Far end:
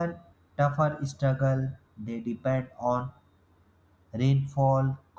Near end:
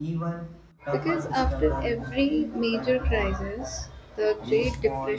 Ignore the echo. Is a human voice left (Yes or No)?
Yes